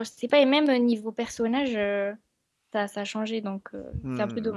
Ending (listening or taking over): taking over